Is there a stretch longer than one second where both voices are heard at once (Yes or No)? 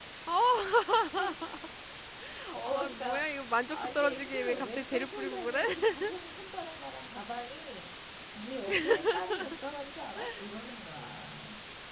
Yes